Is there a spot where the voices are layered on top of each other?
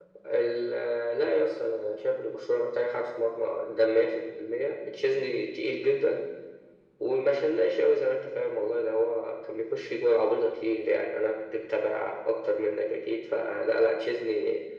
No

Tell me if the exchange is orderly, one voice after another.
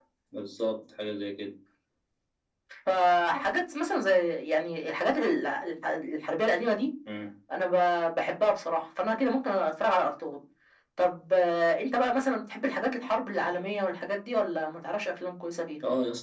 Yes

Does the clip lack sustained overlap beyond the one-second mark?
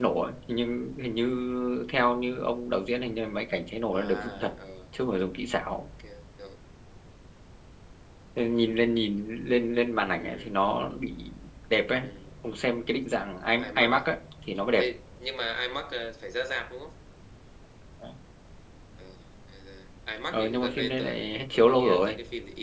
No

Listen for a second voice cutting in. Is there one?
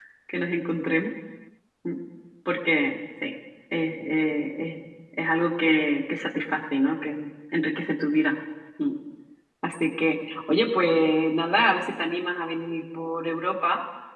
No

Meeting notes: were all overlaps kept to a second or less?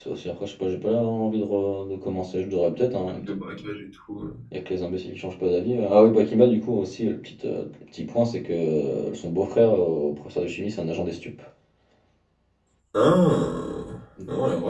Yes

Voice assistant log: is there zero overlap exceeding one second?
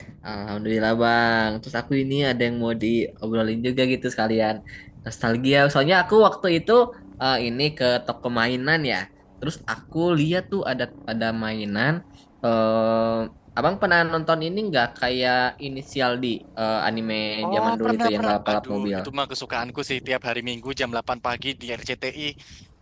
No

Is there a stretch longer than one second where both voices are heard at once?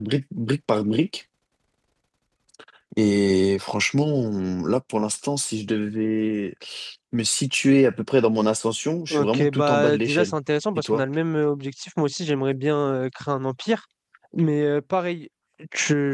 Yes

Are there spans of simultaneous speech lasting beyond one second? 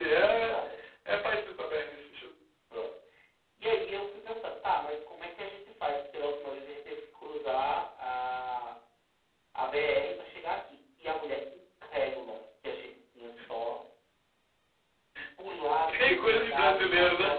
Yes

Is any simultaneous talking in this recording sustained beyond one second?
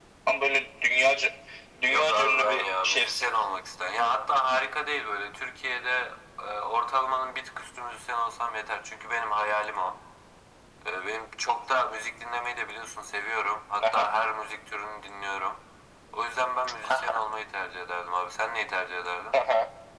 Yes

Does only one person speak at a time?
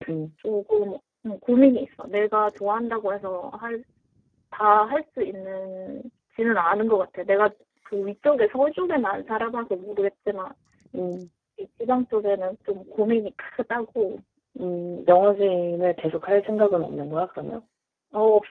Yes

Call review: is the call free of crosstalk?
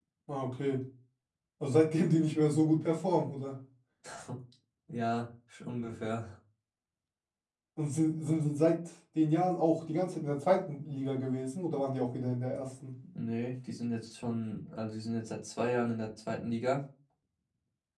Yes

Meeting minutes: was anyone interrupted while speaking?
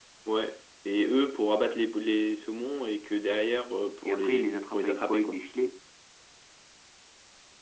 Yes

